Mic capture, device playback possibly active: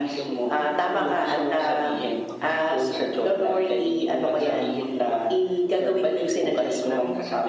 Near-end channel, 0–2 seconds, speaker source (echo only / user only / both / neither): both